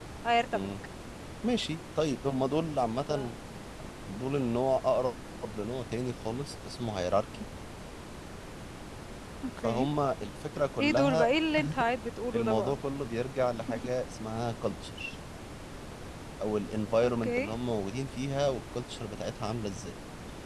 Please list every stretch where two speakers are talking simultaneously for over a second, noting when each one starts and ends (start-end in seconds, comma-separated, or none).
none